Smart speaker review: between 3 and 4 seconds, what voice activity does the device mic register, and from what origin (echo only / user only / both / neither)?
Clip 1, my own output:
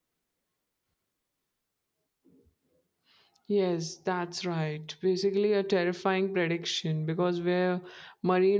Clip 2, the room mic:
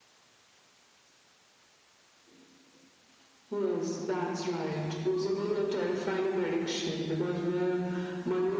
echo only